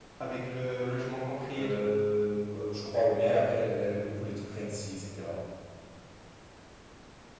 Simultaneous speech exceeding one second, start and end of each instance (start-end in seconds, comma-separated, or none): none